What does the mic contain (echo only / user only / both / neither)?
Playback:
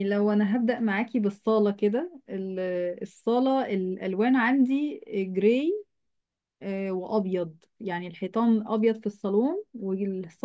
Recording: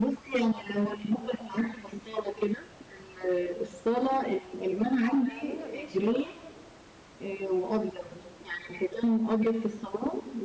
both